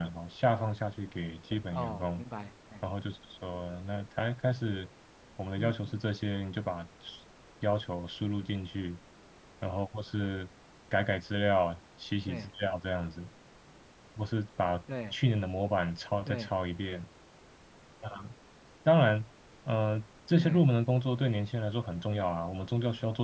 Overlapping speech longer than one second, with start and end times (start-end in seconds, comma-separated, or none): none